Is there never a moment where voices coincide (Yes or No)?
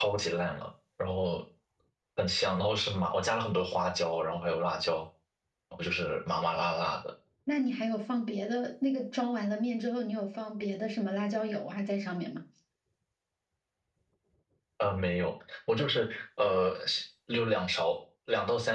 Yes